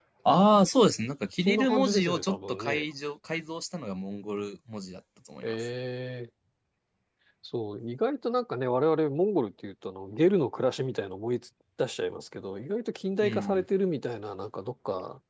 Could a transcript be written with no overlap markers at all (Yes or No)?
No